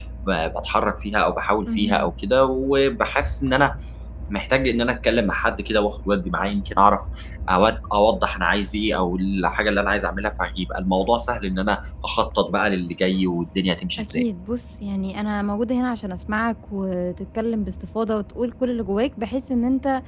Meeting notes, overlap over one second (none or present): none